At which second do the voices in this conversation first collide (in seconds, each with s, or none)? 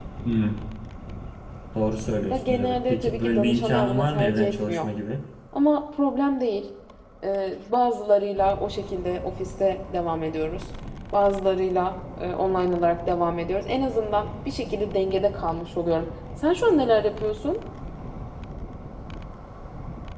2.3 s